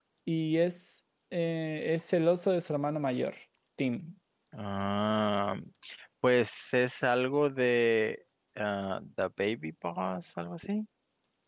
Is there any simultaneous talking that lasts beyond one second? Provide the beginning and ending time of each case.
none

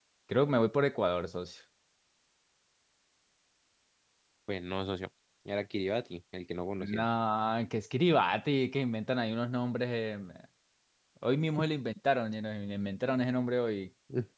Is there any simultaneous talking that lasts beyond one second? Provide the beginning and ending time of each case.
none

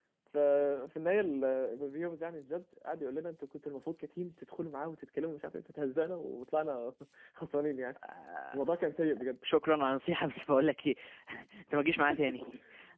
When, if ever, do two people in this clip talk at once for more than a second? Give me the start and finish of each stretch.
none

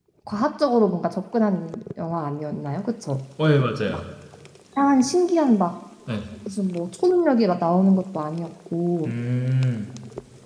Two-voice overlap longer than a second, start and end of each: none

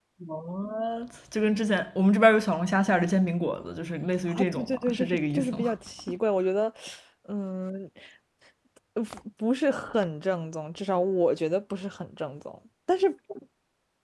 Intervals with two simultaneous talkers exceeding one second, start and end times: 4.3-5.7

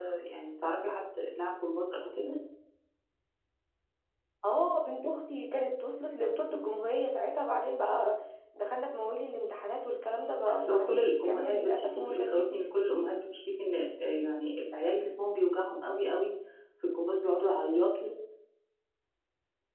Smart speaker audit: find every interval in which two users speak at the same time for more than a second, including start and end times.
10.5-12.6

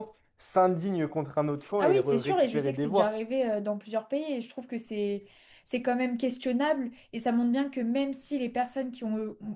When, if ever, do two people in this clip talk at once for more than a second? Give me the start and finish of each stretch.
1.8-3.1

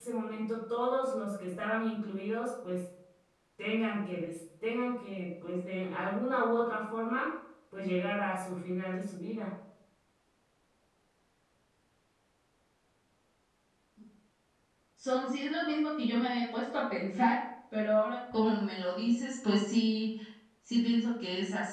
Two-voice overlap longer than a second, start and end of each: none

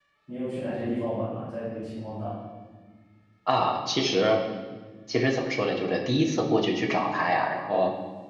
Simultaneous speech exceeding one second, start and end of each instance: none

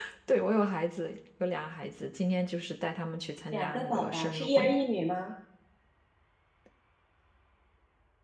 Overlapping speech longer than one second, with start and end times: 3.5-4.8

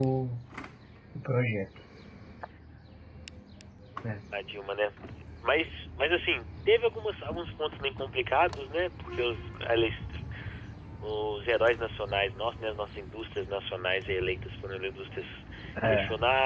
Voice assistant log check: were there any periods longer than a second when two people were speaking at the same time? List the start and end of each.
none

